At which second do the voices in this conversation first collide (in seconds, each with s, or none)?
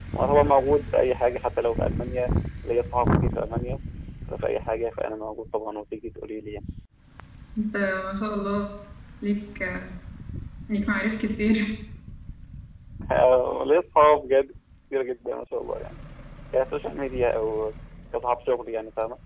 none